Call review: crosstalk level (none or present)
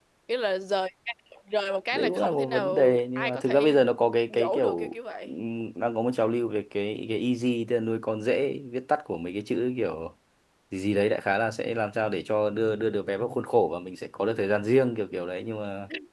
present